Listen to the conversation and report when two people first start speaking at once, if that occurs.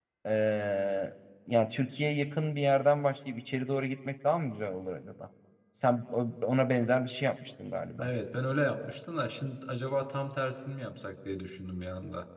none

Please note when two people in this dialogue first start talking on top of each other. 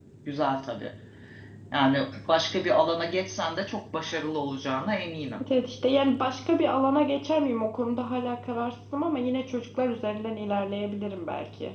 none

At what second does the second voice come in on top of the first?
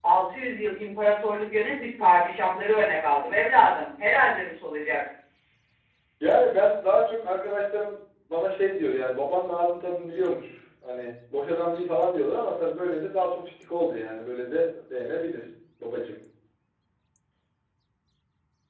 none

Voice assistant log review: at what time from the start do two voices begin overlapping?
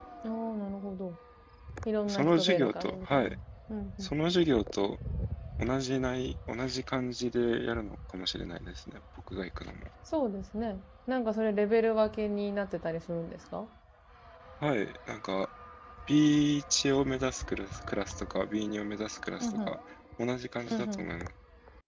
2.1 s

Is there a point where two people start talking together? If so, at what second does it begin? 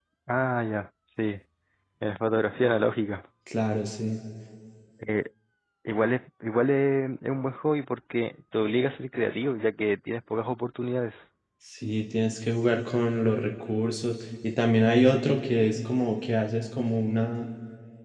none

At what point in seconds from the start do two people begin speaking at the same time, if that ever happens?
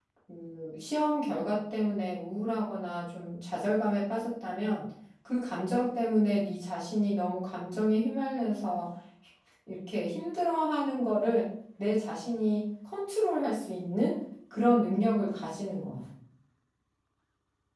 none

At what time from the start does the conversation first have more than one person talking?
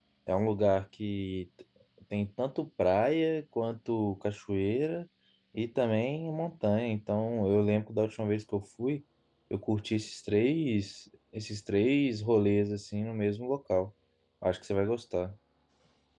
none

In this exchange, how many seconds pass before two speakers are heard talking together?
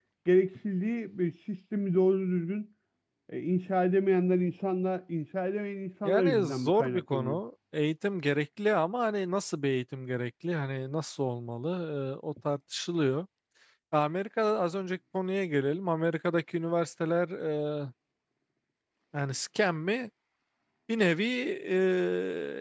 6.0 s

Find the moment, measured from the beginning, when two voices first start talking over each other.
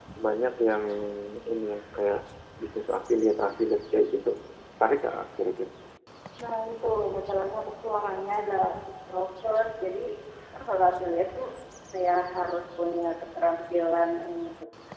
none

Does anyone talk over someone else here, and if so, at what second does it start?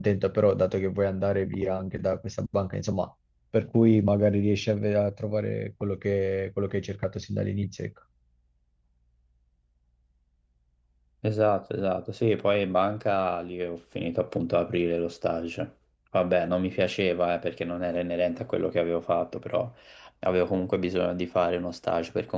none

